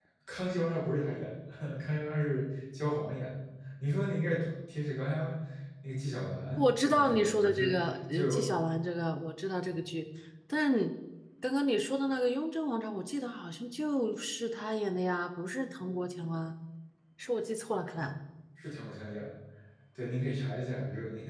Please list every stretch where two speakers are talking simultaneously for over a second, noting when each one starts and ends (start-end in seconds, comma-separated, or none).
6.6-8.5